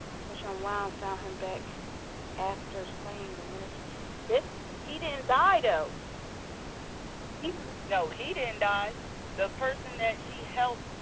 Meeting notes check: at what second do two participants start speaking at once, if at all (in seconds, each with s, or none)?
none